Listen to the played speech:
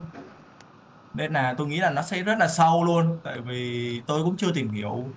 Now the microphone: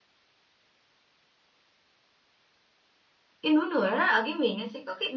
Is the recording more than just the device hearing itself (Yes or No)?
Yes